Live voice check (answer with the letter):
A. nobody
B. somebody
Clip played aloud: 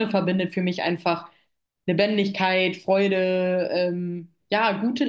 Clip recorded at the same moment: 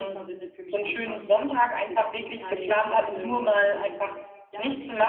B